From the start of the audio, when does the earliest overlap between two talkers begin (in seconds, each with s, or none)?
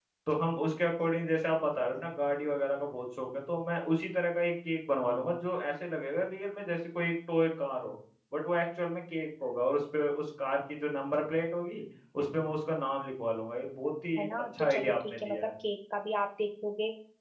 14.2 s